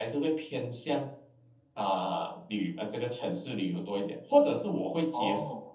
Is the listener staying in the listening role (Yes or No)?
Yes